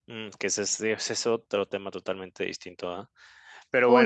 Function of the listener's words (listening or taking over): listening